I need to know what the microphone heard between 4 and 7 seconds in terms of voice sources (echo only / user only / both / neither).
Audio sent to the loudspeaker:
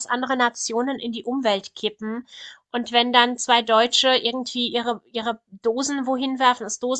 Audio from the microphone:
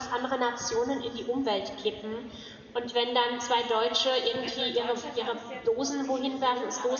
both